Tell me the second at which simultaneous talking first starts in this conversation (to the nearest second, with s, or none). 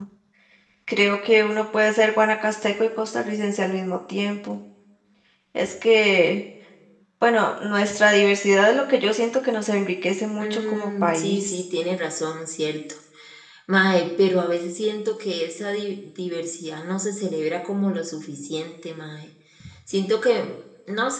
10 s